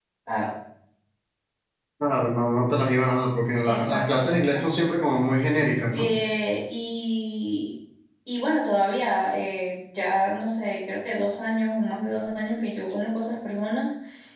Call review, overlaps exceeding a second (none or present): present